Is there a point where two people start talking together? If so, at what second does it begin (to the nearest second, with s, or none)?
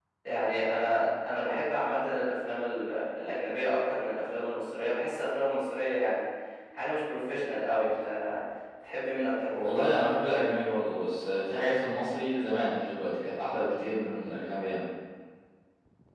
none